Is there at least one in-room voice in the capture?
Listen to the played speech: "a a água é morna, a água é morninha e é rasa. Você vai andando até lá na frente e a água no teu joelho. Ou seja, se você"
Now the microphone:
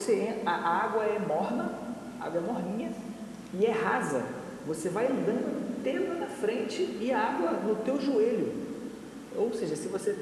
No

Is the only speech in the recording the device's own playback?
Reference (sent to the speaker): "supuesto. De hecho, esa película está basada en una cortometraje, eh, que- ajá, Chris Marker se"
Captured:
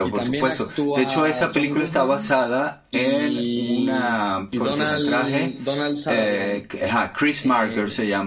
No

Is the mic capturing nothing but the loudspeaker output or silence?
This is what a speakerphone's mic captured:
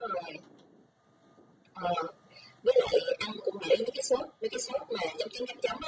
Yes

